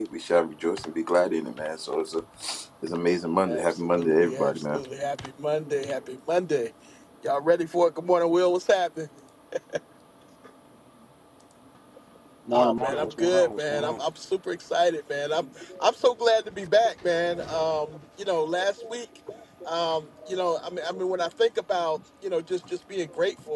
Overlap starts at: 3.5 s

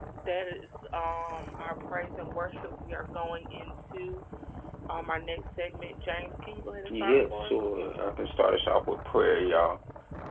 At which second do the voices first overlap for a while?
6.9 s

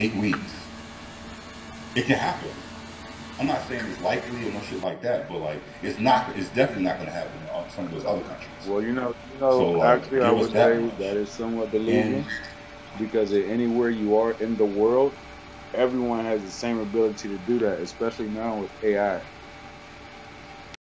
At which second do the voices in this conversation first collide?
9.5 s

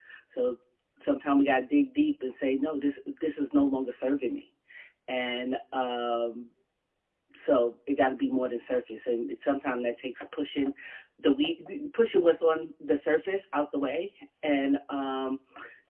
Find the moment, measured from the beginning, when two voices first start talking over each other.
none

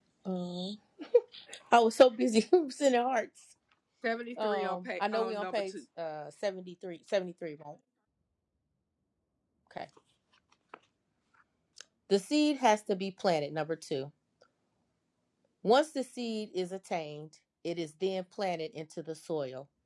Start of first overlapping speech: 4.4 s

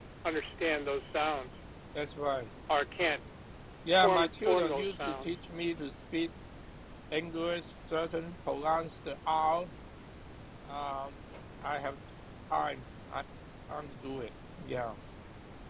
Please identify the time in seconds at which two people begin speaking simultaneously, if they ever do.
4.0 s

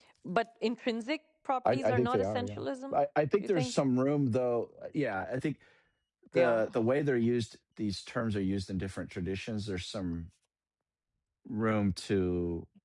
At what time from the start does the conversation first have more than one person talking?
1.6 s

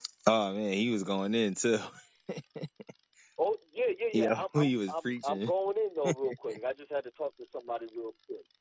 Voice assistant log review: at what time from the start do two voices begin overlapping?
4.1 s

